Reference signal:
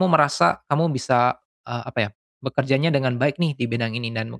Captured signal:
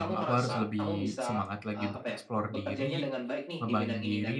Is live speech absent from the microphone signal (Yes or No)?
No